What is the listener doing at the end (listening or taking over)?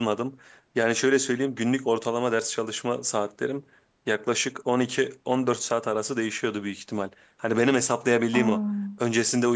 listening